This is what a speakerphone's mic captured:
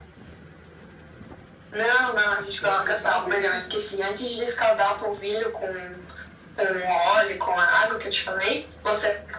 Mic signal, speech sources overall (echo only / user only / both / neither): both